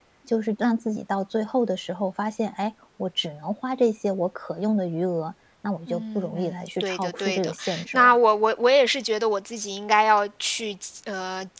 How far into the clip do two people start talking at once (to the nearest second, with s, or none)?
6 s